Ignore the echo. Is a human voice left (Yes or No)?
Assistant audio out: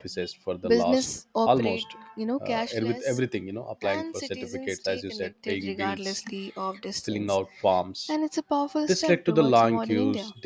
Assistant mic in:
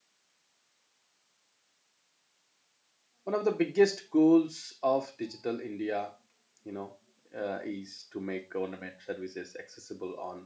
Yes